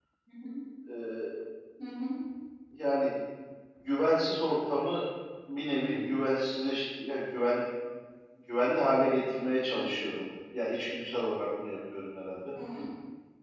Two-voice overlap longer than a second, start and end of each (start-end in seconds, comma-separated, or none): none